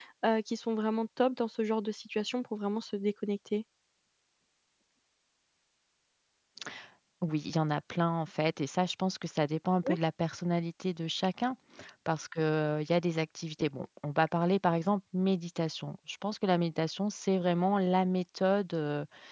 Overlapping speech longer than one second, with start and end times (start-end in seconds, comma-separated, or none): none